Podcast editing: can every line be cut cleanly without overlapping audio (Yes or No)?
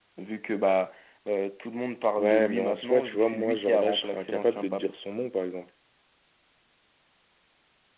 No